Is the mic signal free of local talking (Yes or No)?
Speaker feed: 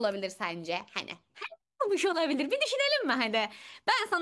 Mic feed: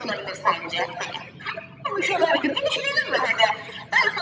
Yes